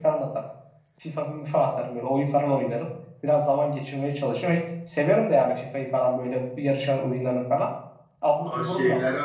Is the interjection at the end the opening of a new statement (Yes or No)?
Yes